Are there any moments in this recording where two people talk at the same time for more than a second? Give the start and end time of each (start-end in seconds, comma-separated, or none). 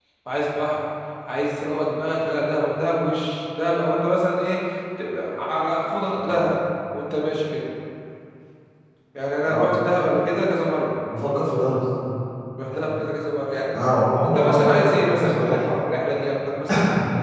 14.2-15.6